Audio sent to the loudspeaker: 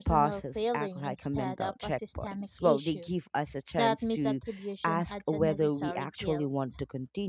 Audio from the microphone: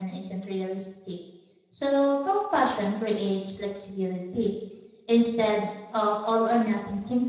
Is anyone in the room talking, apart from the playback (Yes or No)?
Yes